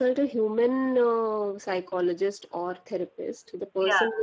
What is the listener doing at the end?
listening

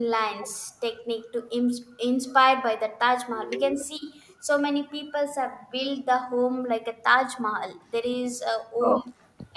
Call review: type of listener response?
listening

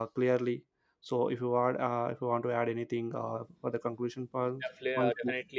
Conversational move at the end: taking over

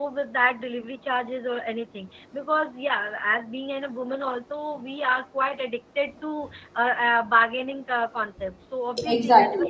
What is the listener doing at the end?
taking over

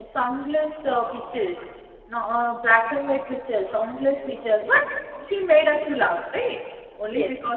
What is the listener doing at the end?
listening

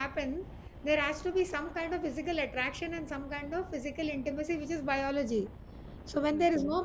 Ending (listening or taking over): listening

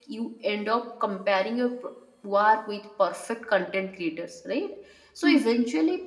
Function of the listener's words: listening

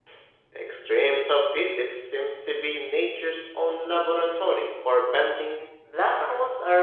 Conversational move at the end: taking over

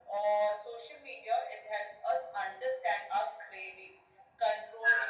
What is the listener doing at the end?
listening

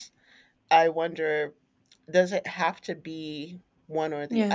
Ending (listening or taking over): listening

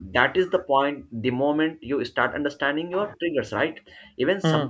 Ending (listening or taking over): listening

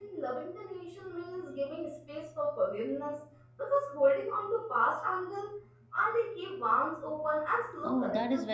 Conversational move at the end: taking over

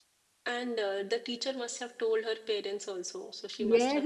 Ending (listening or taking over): taking over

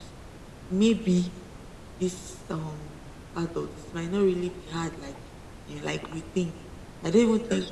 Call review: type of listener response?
listening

